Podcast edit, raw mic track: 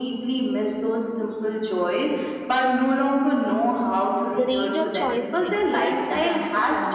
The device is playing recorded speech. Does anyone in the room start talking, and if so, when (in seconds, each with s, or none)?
4.3 s